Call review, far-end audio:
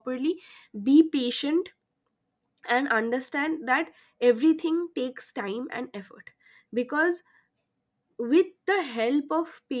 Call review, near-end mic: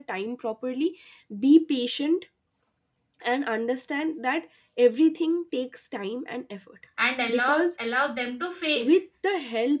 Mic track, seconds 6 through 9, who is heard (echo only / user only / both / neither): both